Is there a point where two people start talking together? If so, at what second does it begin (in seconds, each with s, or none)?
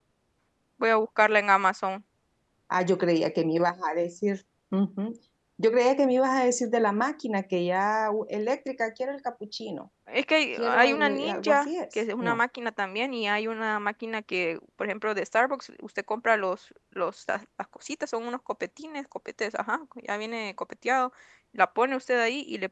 10.6 s